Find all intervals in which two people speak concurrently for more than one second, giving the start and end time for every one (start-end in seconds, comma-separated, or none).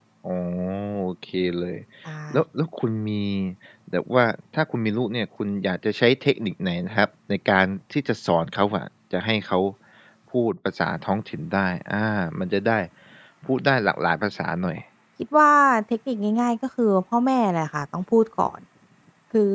none